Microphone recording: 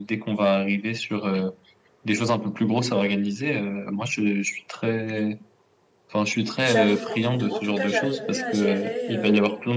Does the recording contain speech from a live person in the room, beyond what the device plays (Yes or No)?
Yes